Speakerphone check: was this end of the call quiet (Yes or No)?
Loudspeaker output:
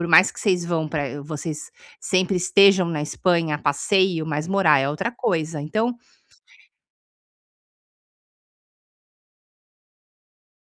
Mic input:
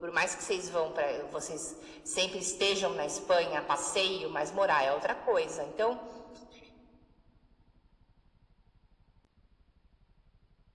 Yes